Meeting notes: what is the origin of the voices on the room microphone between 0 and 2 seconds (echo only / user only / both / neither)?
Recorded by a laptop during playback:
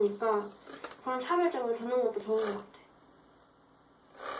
echo only